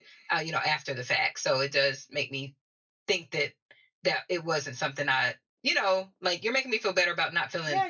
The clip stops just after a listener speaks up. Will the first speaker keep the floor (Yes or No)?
No